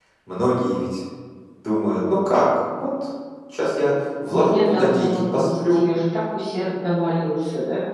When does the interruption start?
4 s

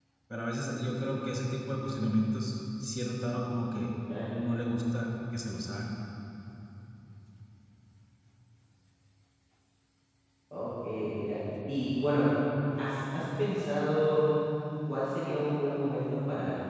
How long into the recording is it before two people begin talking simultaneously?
none

